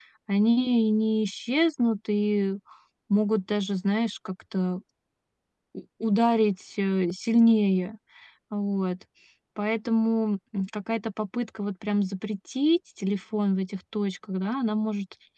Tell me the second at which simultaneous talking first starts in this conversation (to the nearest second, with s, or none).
none